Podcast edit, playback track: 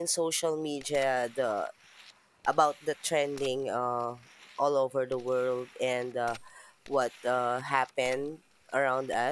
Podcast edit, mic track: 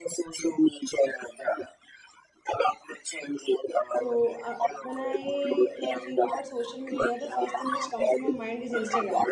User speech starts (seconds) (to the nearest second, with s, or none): 4 s